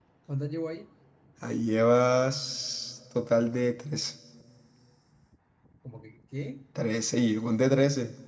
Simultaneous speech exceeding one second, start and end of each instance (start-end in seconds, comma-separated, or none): none